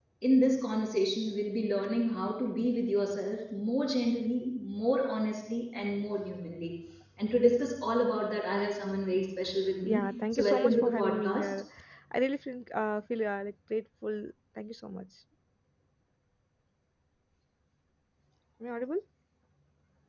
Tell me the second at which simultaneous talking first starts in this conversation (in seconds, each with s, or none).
9.8 s